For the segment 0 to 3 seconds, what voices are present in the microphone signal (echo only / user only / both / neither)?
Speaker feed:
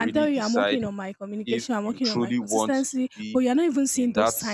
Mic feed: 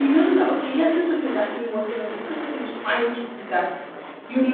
user only